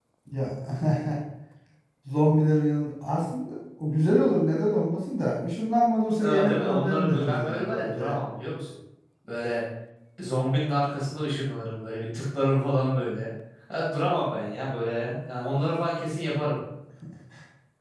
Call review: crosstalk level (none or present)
present